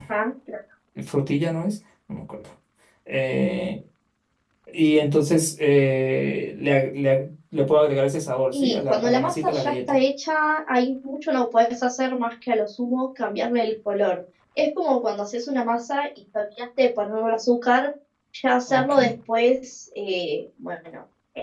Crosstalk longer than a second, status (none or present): present